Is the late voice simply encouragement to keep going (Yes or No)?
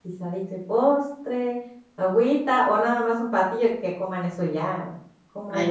No